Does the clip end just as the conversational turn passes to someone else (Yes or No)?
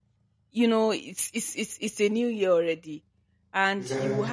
No